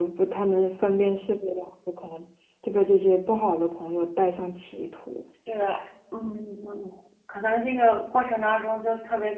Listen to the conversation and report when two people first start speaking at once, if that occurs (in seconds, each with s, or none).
none